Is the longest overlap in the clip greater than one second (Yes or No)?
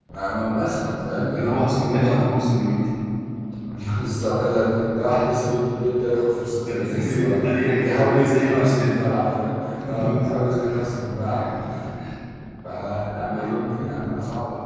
Yes